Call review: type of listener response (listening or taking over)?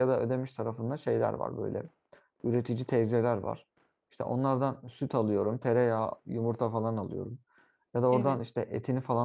listening